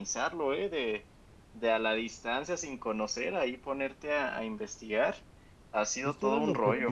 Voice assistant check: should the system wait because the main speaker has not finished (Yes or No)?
No